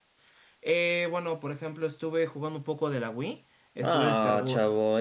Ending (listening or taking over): taking over